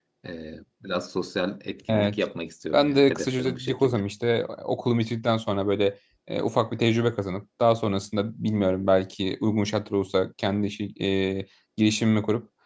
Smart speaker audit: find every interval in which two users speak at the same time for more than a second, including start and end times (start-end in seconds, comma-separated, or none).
2.7-4.0